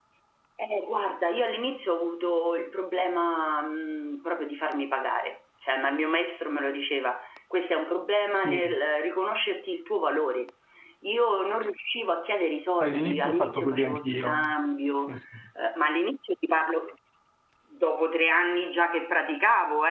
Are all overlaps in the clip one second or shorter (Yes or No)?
No